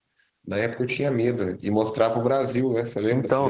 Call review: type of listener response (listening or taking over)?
taking over